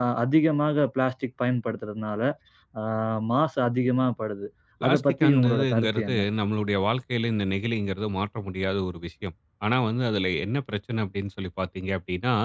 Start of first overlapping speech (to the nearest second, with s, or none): 5 s